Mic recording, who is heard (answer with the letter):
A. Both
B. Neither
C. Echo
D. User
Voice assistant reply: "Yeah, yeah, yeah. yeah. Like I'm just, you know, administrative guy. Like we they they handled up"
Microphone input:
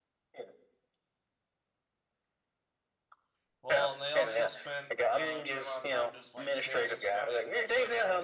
A